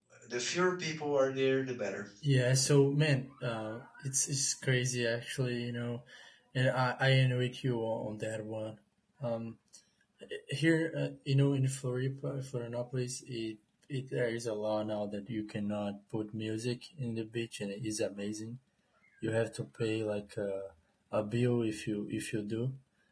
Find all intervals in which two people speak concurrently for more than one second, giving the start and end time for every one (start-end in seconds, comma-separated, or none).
none